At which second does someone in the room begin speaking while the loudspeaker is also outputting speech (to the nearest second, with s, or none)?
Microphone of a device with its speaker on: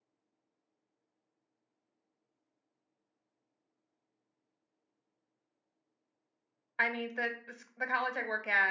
7 s